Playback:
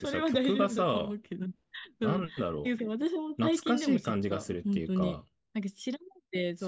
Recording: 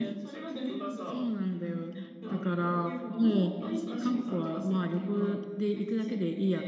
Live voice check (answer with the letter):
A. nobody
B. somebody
B